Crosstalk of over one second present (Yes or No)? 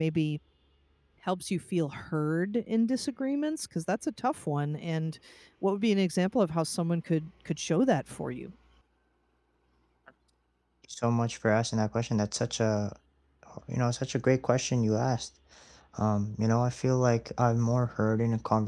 No